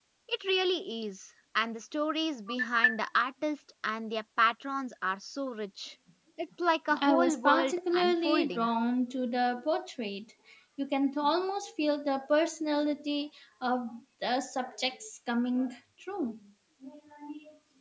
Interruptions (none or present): present